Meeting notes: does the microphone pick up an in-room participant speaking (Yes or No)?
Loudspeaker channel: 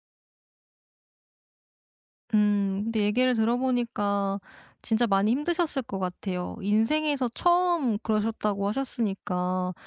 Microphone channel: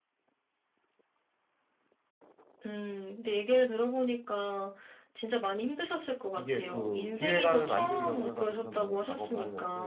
Yes